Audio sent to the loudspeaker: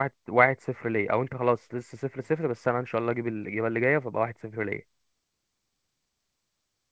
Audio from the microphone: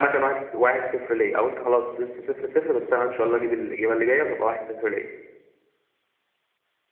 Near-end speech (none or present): none